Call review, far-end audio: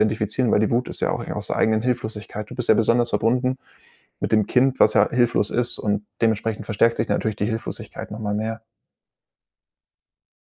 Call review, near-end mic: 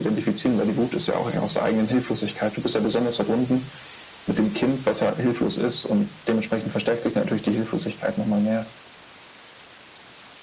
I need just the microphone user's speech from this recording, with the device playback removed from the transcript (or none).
none